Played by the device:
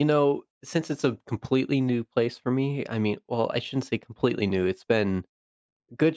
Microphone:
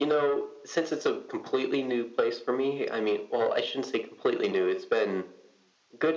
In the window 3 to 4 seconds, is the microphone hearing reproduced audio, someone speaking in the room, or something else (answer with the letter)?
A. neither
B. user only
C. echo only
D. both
C